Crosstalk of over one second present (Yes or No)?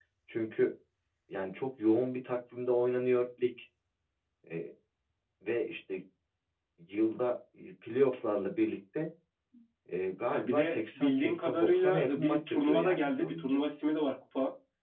Yes